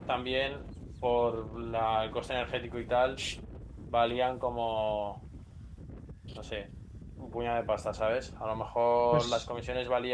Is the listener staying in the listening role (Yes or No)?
Yes